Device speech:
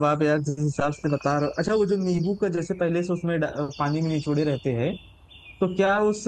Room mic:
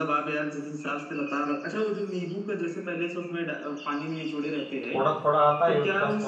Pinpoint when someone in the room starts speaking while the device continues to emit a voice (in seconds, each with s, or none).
4.8 s